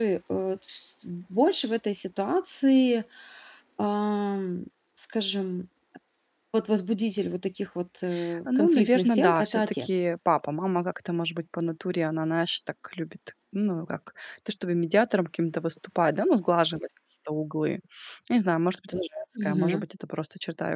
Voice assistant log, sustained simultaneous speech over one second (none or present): present